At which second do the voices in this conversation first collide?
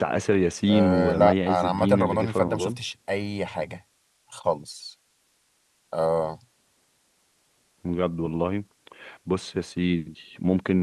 0.7 s

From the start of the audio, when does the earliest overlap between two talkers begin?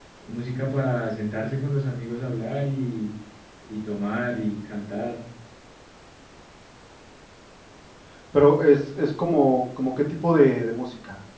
none

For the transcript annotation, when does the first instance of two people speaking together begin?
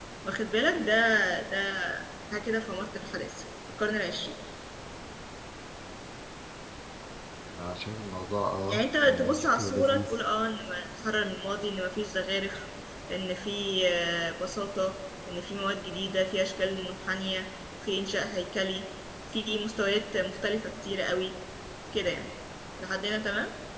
8.7 s

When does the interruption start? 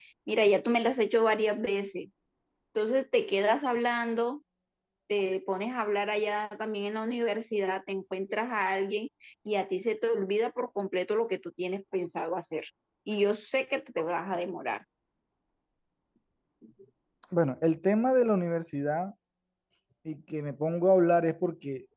none

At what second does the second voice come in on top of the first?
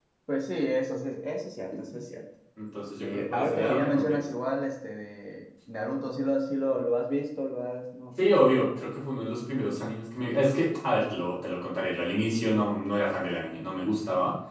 3.0 s

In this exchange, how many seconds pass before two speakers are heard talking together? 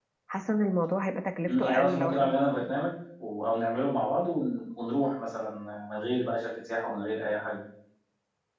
1.5 s

